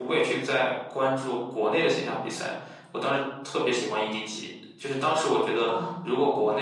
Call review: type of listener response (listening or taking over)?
listening